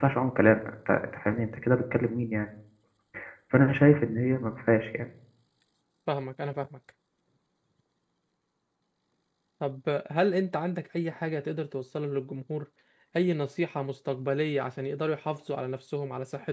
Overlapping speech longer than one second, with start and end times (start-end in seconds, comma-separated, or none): none